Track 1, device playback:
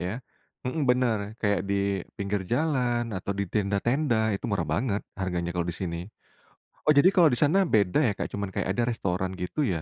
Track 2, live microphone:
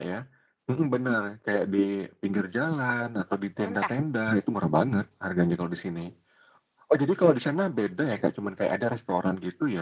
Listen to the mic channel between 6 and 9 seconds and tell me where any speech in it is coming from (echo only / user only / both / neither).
echo only